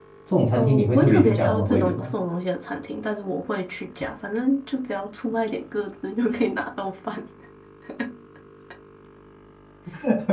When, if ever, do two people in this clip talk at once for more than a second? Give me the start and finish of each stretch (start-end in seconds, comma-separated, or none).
0.6-2.1